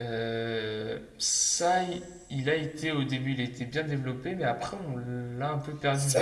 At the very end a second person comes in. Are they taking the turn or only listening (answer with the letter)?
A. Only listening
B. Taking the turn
B